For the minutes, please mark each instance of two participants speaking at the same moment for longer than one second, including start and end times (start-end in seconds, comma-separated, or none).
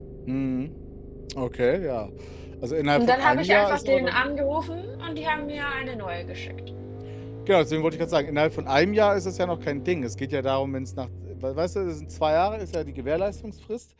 3.0-4.2